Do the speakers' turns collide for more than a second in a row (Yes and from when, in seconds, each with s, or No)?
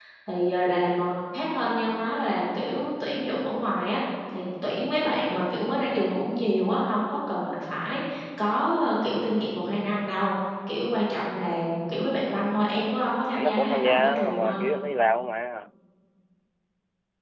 Yes, from 13.3 s